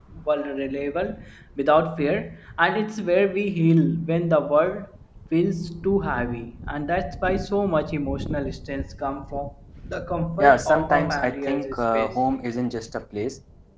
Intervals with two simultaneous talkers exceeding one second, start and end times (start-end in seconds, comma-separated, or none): 10.4-12.2